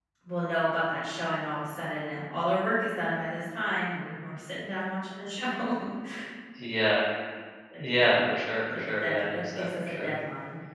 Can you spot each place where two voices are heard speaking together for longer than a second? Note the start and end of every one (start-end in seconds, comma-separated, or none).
8.7-10.1